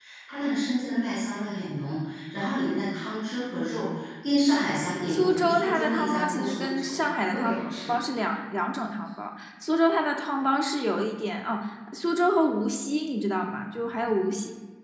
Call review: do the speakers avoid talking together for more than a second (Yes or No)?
No